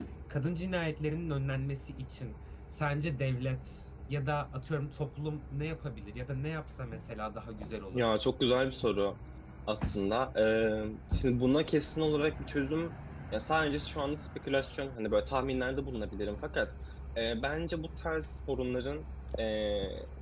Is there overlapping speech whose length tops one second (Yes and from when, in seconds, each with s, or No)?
No